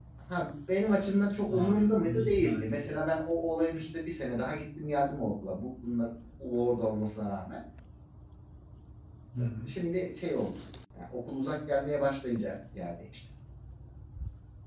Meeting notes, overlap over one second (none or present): present